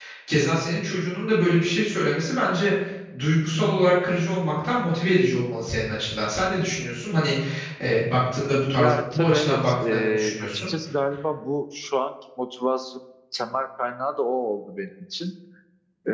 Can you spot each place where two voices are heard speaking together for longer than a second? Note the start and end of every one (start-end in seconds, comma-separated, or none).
8.7-10.7